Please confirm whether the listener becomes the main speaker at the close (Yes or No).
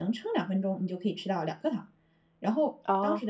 No